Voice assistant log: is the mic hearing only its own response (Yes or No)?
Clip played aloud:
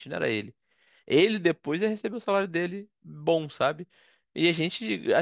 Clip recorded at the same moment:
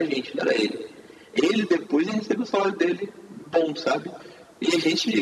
Yes